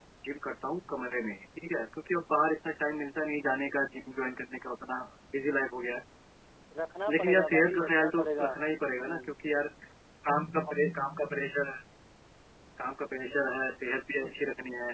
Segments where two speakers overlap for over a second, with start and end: 7.1-8.5

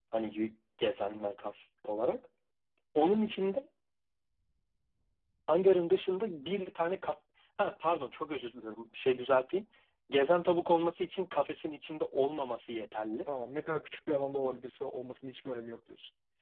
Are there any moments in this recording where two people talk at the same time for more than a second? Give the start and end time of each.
none

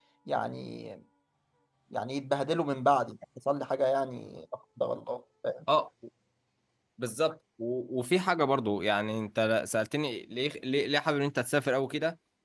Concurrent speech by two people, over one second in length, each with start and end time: none

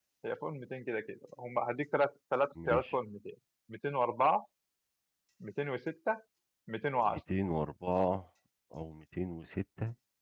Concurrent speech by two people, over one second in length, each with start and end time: none

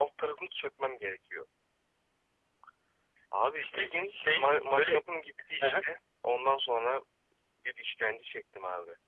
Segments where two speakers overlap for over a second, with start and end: 3.6-5.0

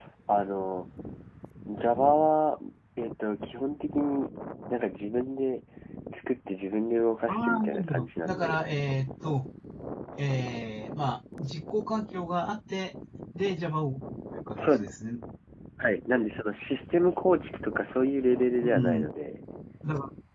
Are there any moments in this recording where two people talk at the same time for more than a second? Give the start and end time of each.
7.3-8.6

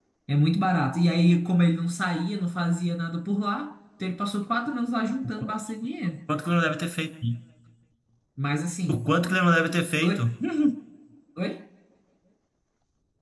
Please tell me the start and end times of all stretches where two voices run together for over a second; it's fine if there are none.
none

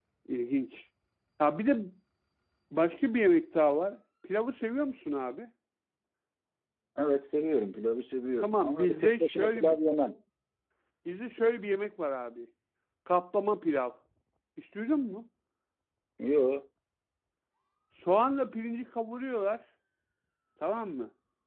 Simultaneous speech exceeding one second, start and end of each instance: 8.4-9.8

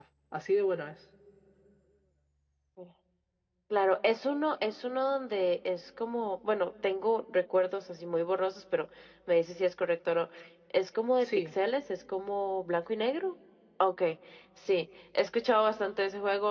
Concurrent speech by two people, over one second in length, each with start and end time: none

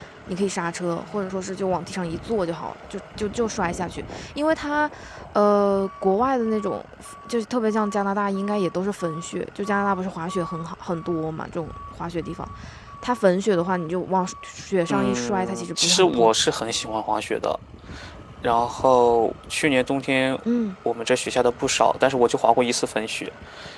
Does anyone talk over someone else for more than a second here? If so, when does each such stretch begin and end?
14.9-16.3

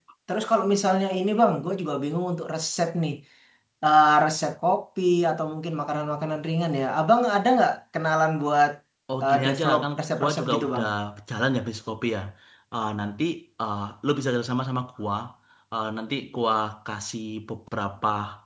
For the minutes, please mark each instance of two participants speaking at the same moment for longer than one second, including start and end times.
9.2-10.8

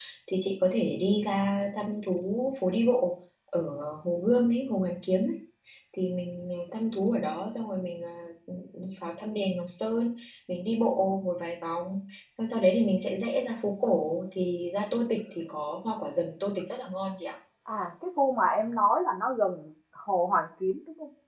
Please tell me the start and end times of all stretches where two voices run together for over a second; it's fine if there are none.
none

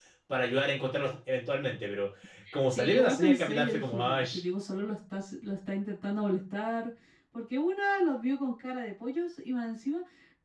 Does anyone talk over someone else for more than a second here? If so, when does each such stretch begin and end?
2.7-4.2

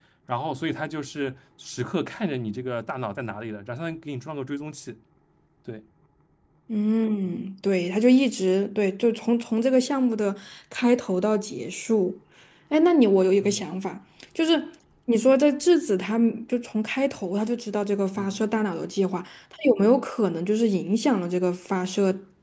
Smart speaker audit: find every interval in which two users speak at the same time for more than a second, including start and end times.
none

